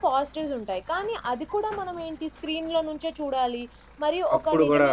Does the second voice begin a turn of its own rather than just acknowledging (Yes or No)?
No